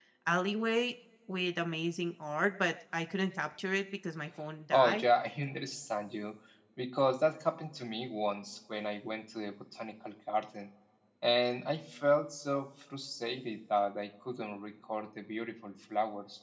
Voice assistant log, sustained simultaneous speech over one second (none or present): none